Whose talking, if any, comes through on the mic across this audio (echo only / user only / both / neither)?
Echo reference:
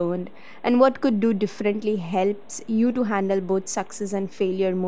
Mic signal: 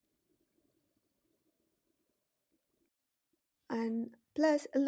user only